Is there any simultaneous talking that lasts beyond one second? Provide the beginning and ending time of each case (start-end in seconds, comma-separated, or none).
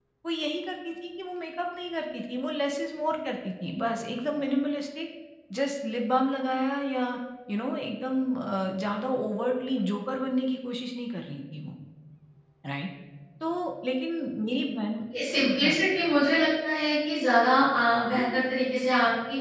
none